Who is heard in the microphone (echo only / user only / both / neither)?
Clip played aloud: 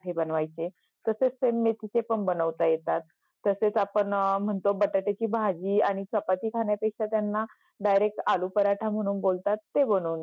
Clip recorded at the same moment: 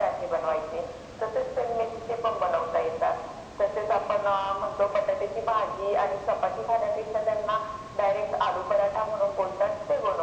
echo only